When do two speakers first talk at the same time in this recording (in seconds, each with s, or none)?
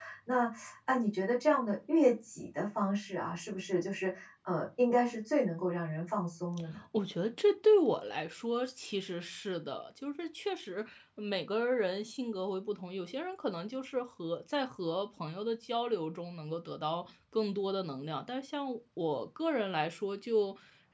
none